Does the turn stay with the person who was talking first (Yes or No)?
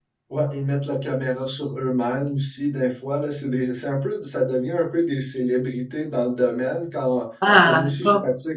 Yes